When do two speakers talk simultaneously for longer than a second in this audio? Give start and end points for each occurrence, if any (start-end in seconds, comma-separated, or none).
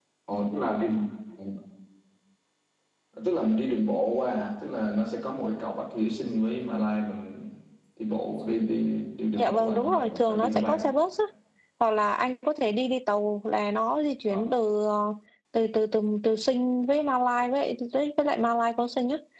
9.4-10.9